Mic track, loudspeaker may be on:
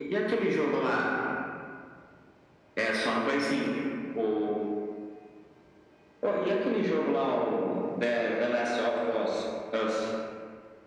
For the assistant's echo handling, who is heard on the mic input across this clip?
echo only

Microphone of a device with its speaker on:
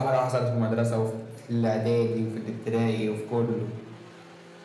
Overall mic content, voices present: echo only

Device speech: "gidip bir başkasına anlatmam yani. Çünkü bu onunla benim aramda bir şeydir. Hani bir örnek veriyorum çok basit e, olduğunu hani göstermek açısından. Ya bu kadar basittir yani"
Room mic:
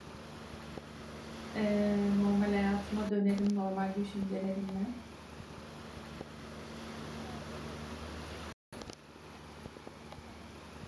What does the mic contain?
user only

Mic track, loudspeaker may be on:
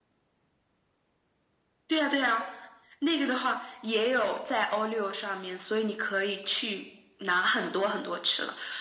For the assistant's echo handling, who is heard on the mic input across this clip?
echo only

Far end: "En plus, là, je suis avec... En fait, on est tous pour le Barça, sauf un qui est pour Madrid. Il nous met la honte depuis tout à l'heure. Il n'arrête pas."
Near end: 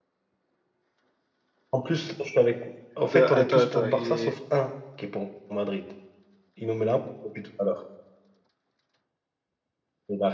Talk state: both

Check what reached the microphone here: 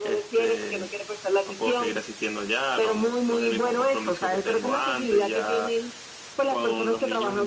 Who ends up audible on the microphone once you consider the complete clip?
echo only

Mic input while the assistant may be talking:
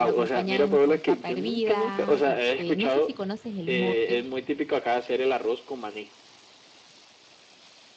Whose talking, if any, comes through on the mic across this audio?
both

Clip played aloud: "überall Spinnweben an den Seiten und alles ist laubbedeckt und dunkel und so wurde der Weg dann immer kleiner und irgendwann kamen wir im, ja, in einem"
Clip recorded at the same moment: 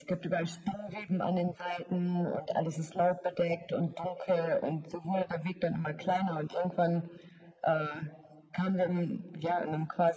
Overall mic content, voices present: echo only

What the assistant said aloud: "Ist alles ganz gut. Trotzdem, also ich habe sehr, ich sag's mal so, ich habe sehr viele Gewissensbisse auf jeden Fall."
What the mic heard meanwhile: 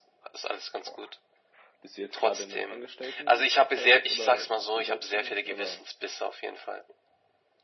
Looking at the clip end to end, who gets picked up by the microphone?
both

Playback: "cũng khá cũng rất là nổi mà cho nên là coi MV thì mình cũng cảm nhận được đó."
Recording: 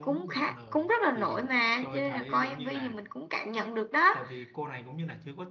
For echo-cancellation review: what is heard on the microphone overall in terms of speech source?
both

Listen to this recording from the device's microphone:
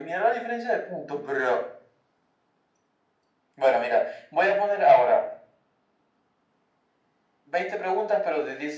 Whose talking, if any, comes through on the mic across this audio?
echo only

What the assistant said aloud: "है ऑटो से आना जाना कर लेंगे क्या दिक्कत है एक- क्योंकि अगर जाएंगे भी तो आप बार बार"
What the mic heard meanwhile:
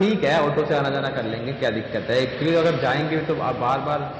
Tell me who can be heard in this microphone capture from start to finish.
echo only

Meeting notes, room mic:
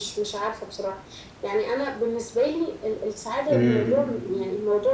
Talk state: both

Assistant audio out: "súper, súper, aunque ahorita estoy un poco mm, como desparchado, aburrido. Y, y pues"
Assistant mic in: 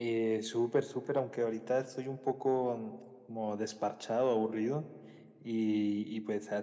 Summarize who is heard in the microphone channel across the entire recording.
echo only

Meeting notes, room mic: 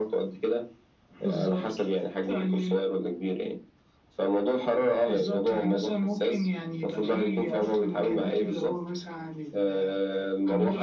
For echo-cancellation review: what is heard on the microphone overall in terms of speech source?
echo only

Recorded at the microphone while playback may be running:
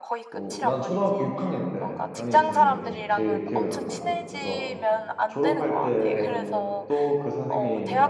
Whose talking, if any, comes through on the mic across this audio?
both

